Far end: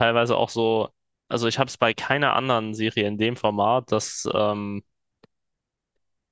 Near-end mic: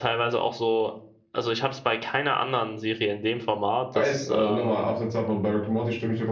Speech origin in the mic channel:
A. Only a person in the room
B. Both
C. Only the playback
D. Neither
B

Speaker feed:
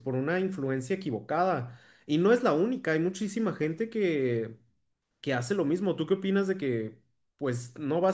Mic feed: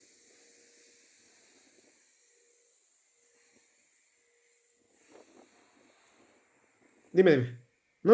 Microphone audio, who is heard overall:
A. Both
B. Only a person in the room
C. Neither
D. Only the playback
B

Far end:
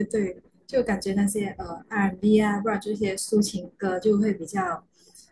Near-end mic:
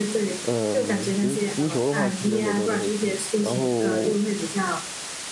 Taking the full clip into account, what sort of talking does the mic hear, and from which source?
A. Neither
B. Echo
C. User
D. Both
D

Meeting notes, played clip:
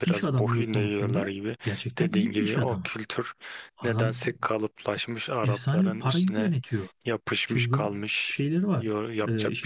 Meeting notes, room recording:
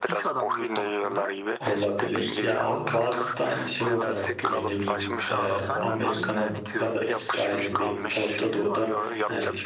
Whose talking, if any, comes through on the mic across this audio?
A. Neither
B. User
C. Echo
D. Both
D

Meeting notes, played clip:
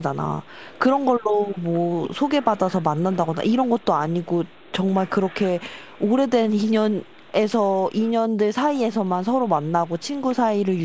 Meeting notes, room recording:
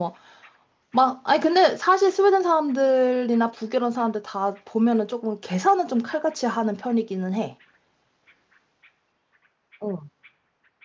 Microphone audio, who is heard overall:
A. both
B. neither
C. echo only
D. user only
D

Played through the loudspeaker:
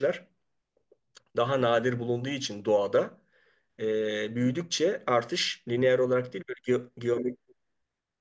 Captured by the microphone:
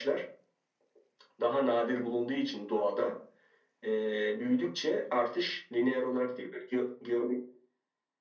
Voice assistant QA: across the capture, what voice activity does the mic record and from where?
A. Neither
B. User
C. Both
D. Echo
D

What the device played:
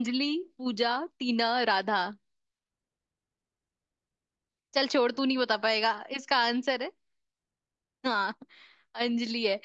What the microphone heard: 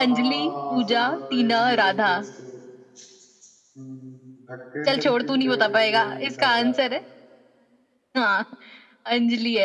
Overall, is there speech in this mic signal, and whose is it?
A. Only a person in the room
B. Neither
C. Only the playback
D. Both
D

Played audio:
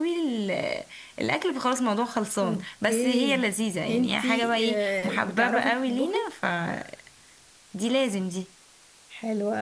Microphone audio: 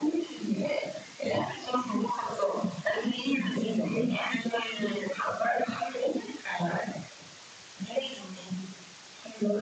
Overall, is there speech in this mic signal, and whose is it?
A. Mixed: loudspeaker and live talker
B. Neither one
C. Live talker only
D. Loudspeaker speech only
D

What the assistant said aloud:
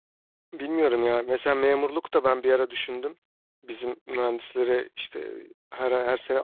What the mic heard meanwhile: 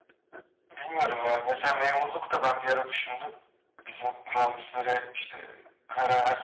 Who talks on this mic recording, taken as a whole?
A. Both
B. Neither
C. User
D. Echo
D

